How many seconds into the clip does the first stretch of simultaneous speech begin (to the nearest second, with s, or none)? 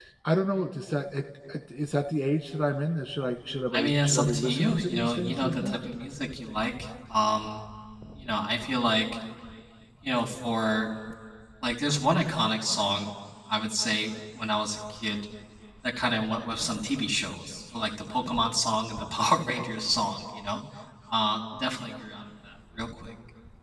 4 s